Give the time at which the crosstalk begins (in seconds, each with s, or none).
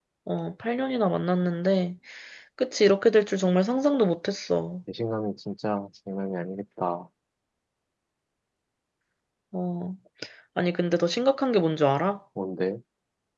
none